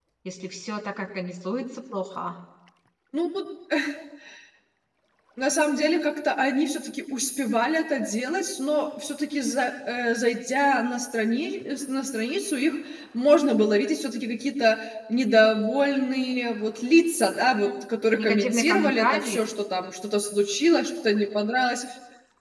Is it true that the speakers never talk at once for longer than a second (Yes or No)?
No